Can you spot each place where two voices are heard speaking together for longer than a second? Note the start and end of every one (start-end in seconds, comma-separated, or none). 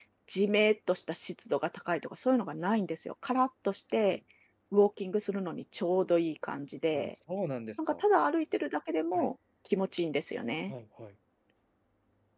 none